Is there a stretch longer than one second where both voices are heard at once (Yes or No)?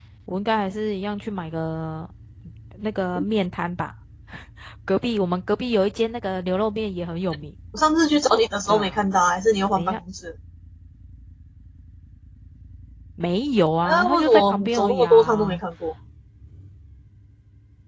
Yes